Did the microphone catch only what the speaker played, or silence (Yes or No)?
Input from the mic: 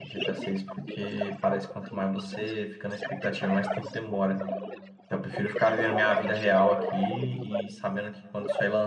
No